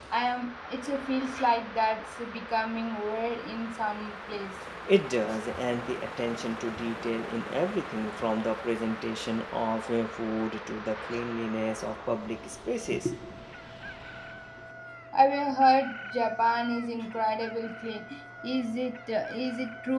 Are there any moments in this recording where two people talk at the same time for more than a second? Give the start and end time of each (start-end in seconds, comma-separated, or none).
none